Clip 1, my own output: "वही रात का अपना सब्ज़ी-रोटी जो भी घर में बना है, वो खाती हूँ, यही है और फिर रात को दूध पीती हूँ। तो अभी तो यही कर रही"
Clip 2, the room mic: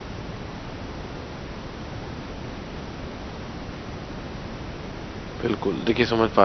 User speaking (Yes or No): Yes